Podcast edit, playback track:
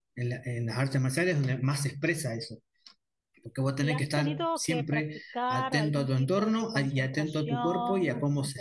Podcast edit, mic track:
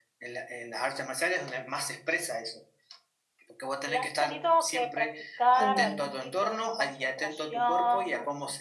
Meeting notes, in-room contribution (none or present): present